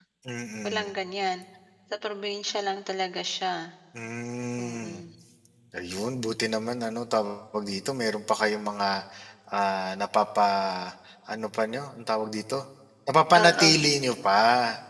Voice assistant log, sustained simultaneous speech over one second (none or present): none